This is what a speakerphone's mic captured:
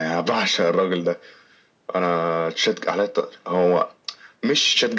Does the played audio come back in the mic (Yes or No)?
Yes